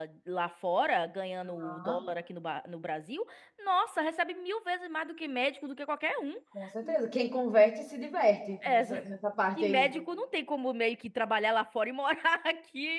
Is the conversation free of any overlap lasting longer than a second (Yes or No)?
Yes